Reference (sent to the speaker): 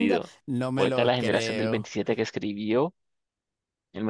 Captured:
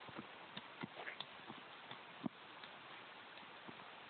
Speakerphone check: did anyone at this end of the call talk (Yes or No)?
No